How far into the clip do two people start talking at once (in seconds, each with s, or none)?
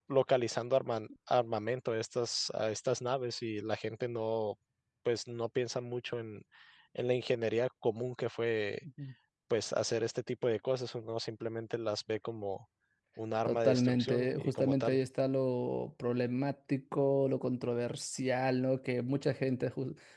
13.5 s